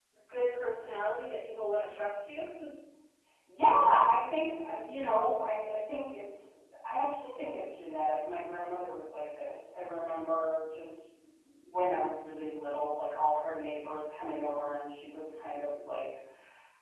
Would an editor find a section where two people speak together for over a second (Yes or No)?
No